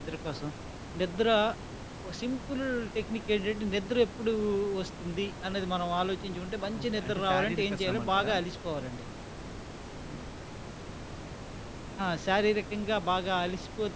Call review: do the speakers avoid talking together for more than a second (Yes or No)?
No